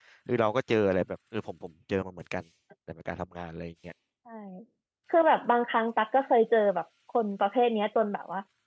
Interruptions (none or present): none